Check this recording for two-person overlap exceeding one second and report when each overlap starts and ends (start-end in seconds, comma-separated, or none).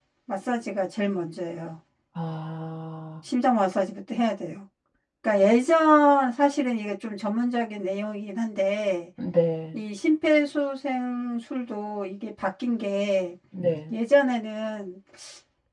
none